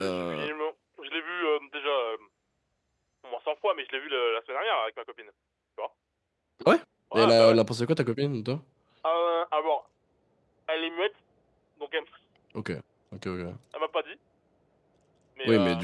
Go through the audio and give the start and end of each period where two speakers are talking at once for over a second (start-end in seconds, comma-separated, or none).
none